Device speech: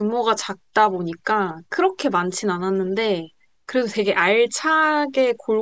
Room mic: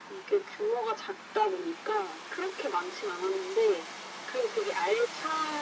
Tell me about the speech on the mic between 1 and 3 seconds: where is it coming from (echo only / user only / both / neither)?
echo only